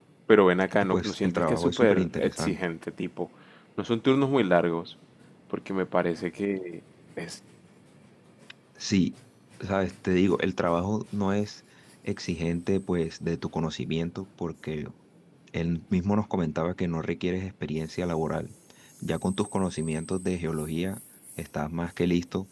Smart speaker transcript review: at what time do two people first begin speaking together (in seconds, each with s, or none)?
0.8 s